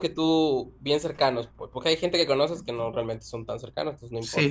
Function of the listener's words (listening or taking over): taking over